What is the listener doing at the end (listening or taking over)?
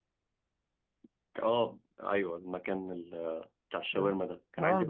listening